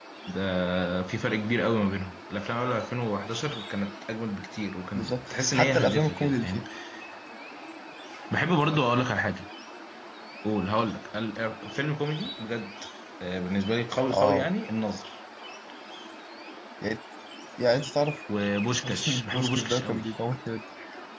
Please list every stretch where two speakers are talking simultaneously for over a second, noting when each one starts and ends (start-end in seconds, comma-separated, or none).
4.9-6.6, 18.8-20.1